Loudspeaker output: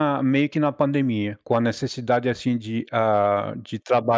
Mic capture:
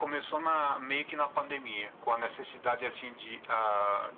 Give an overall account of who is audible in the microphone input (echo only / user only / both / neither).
echo only